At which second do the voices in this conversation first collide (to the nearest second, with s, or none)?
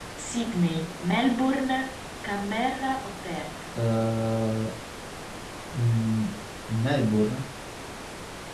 none